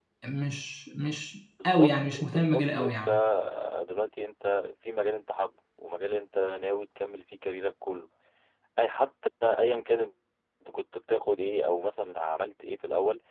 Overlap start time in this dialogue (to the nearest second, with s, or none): 2 s